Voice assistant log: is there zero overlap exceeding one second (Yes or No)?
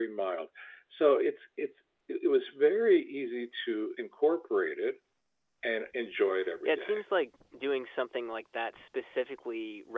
Yes